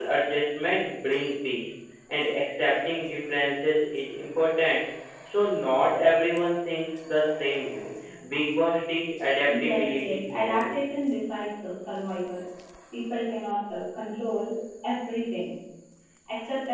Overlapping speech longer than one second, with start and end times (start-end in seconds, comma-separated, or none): 9.5-10.8